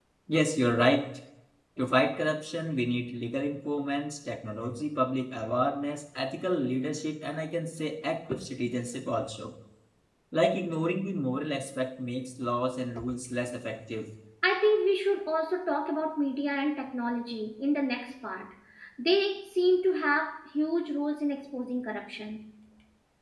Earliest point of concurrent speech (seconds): none

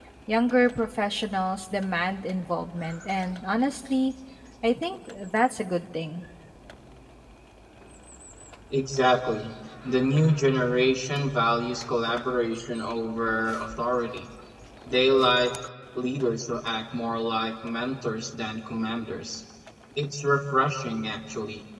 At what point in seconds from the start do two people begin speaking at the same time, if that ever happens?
none

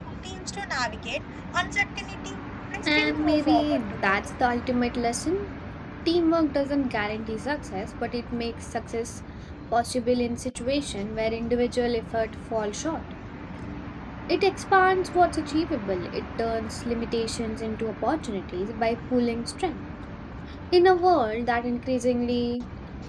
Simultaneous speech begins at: 3 s

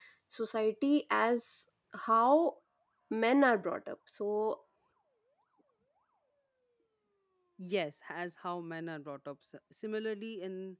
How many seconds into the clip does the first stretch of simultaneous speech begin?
none

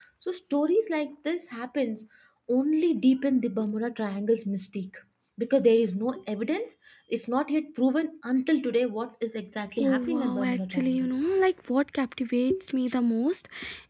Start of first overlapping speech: 10 s

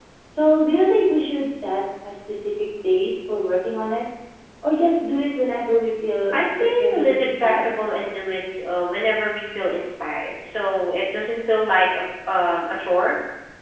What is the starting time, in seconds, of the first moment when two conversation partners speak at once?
6 s

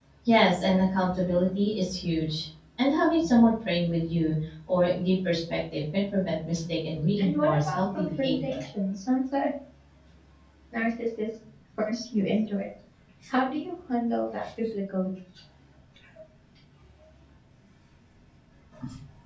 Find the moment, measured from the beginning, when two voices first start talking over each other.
7 s

